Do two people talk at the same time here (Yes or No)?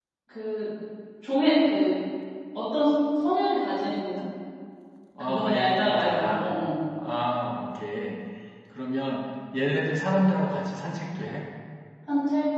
Yes